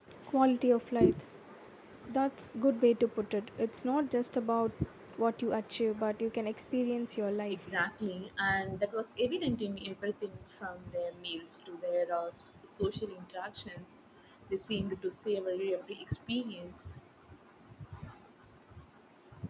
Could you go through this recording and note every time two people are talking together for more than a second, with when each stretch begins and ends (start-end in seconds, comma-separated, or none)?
none